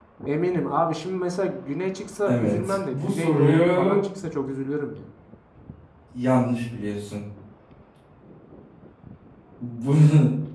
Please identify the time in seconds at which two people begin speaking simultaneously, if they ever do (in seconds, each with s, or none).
2.3 s